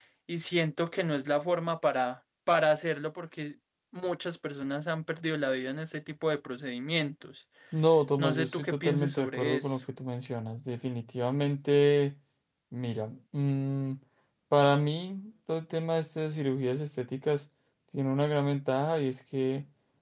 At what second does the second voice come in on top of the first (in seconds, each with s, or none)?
8.2 s